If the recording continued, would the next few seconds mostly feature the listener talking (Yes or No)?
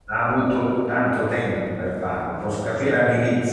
No